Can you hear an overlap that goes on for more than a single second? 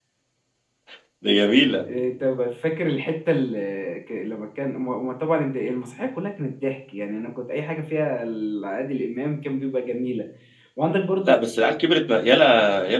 No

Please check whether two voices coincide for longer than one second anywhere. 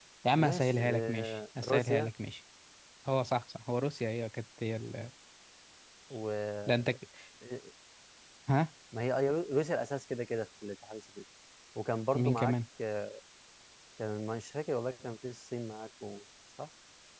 Yes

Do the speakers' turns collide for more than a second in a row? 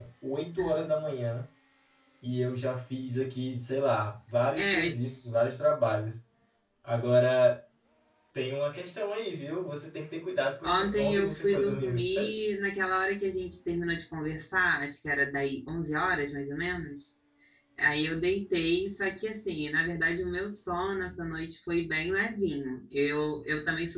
Yes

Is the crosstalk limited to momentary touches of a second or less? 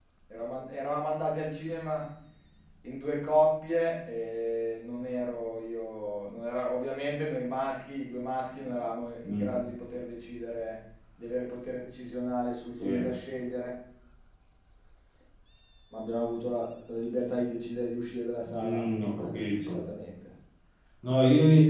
No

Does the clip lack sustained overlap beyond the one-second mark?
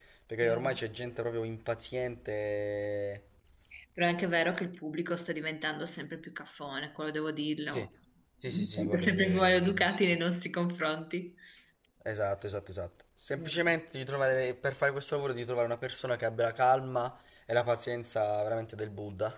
No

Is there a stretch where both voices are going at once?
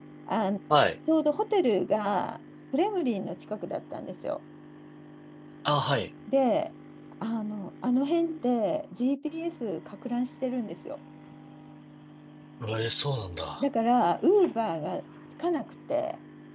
No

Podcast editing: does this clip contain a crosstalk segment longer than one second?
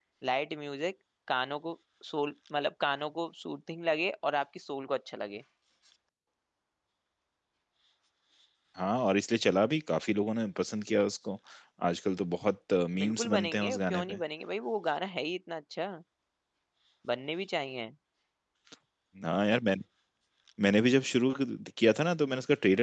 Yes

